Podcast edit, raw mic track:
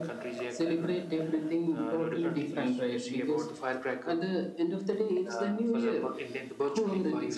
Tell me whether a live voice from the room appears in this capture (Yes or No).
No